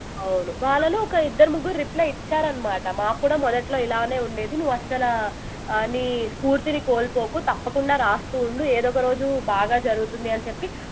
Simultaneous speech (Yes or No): No